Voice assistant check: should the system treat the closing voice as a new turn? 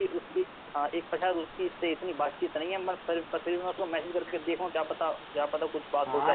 Yes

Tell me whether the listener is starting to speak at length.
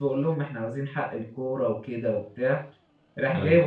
No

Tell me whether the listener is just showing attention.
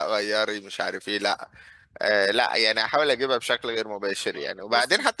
Yes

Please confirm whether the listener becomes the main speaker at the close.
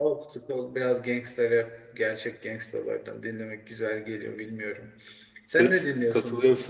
Yes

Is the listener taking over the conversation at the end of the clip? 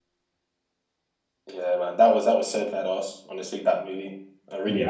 Yes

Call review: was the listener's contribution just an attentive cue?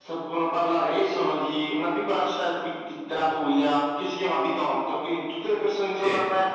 Yes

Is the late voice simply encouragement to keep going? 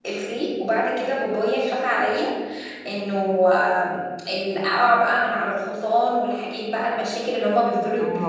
No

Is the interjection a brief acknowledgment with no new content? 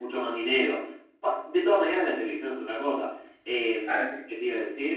Yes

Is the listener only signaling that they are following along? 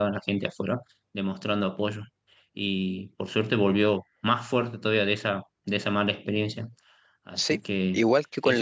No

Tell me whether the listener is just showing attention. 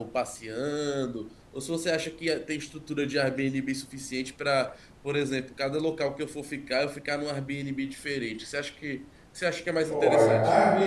No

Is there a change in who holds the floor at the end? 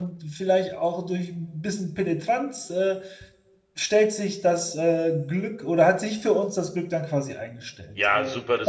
Yes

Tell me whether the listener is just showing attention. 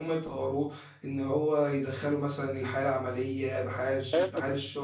No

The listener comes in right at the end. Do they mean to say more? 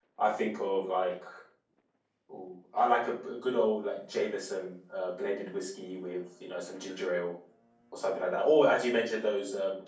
No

